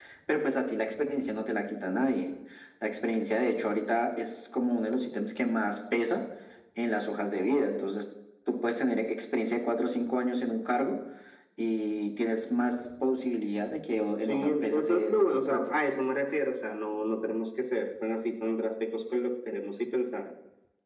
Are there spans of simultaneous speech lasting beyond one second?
Yes, from 14.3 s

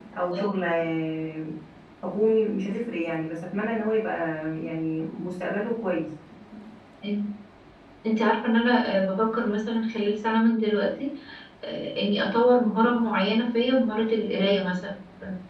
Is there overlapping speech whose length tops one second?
No

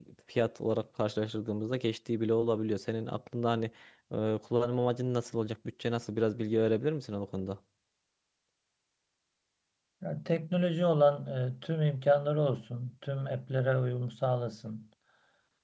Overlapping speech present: No

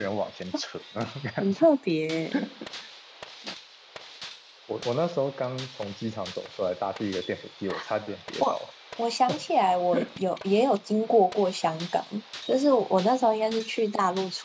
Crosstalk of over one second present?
No

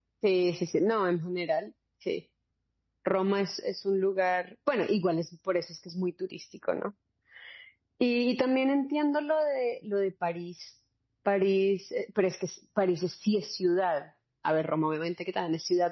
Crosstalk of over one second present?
No

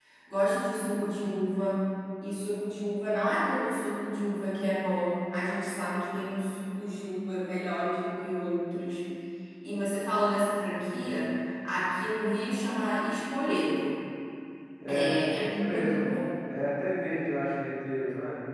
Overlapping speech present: Yes, from 14.9 s

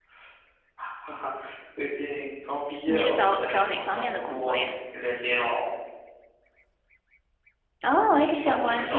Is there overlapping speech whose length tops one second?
Yes, from 2.9 s

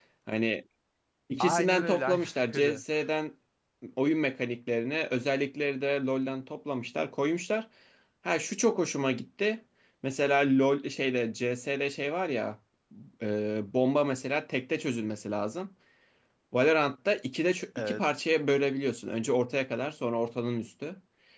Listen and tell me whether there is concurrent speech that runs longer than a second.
Yes, from 1.4 s

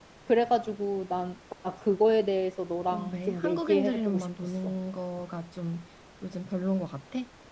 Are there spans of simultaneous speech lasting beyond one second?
Yes, from 2.9 s

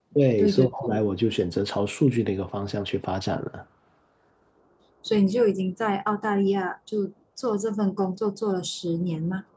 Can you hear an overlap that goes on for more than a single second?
No

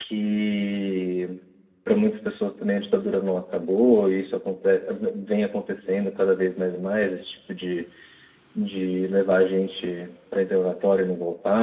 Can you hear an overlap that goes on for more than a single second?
No

